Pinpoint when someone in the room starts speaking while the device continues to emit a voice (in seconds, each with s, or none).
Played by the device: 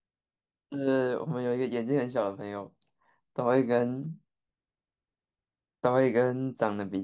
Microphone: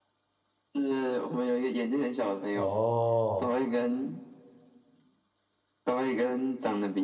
2.5 s